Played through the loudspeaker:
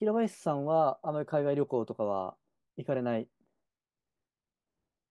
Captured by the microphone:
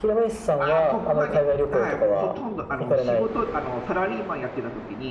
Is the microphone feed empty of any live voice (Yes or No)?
No